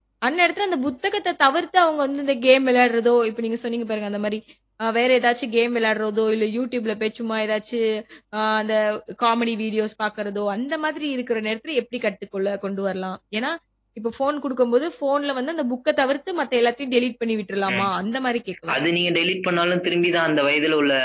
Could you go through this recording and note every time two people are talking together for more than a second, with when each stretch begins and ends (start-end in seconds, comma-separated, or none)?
none